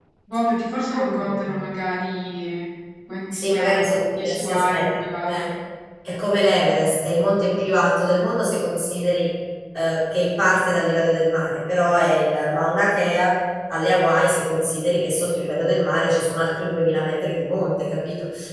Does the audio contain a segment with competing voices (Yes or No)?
Yes